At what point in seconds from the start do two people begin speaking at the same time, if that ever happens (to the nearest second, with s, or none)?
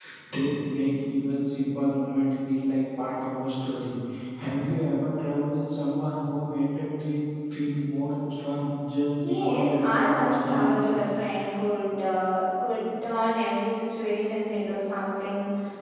9 s